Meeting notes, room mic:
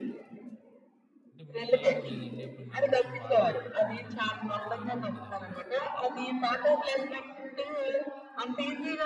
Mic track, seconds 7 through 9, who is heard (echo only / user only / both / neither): echo only